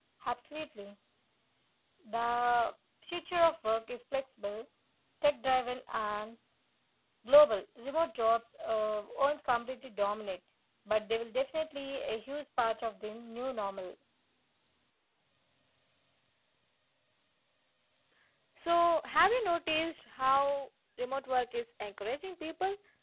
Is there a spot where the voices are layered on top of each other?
No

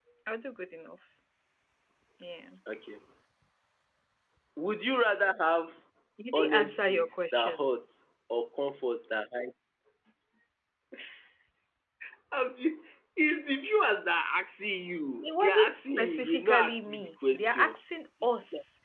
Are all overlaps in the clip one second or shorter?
No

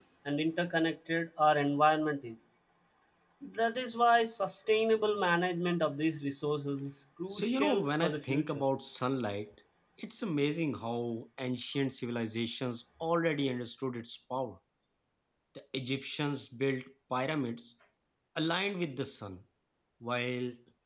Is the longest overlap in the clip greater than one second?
Yes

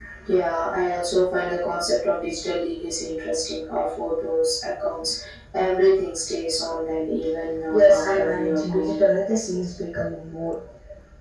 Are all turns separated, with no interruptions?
No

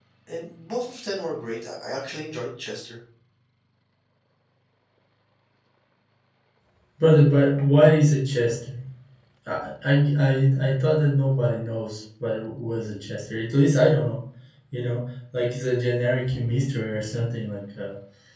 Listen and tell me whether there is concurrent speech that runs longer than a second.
No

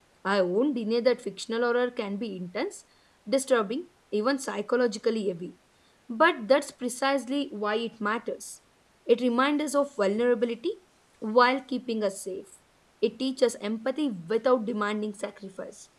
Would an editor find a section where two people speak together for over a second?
No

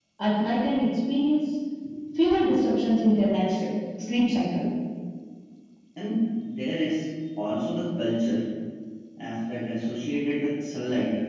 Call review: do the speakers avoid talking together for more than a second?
Yes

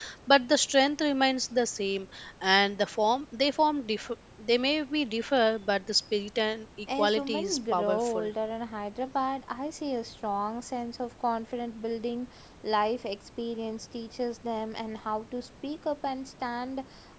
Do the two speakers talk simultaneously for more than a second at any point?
Yes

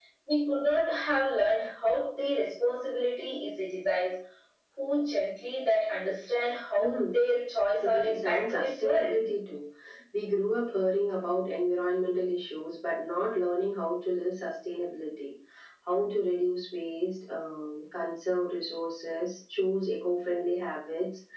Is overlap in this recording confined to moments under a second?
No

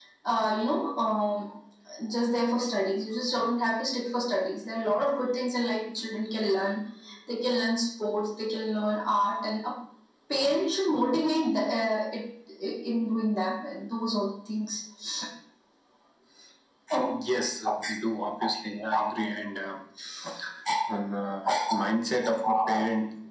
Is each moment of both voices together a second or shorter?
Yes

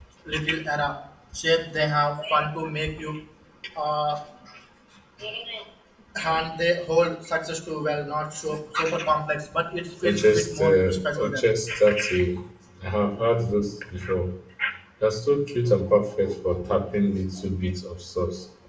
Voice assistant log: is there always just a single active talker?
No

